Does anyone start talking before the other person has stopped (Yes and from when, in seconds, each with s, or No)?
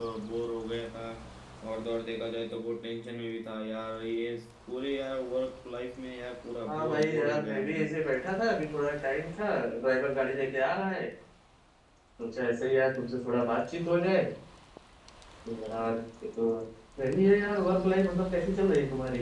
Yes, from 6.6 s